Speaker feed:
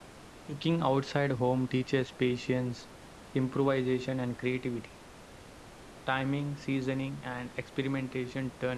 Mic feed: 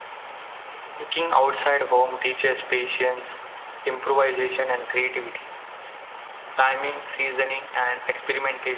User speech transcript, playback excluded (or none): none